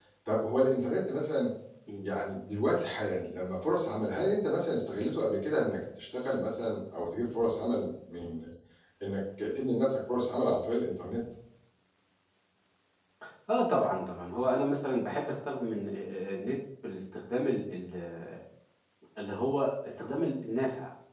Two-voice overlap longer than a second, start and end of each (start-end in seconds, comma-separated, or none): none